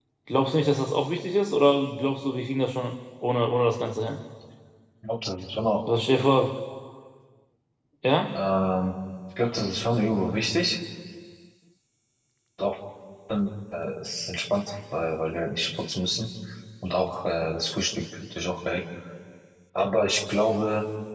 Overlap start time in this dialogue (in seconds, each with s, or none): none